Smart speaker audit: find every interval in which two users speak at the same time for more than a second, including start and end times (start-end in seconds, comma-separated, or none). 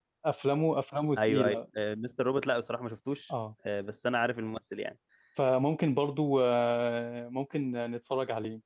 none